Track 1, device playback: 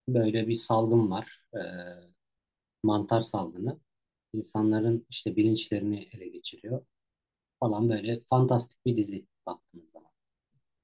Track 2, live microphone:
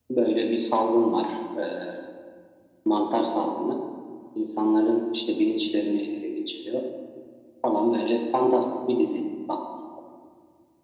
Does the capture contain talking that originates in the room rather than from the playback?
No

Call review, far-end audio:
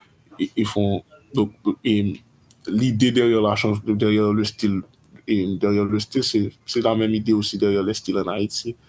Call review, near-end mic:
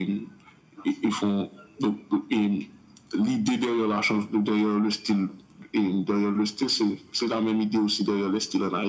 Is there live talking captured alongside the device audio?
No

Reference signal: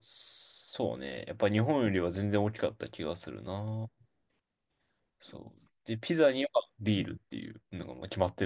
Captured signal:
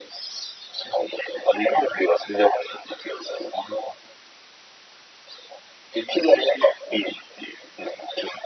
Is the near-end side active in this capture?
No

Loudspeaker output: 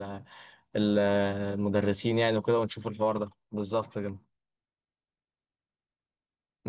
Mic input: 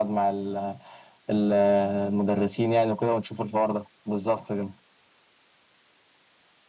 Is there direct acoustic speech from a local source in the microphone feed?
No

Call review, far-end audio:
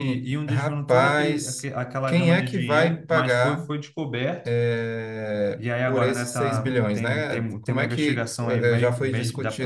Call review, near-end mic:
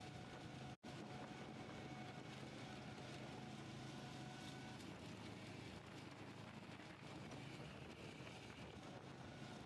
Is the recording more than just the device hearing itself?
No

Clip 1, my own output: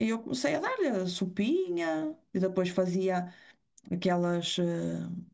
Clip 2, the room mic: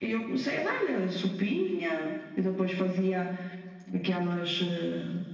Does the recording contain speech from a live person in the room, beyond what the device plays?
No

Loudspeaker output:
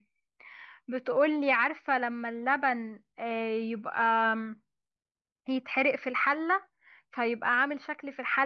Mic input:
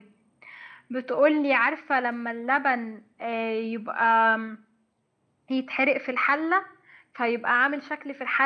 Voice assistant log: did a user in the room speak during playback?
No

